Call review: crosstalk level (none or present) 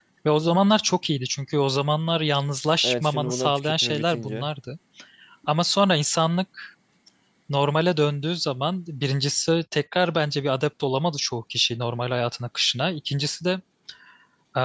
present